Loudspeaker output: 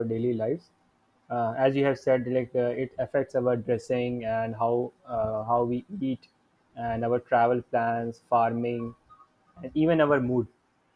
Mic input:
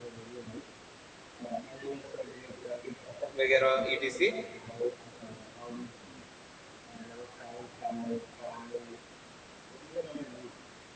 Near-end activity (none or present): present